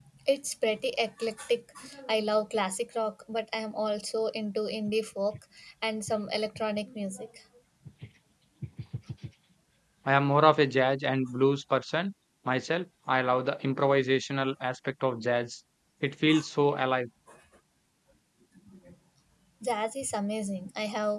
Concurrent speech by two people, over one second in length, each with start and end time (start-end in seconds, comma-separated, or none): none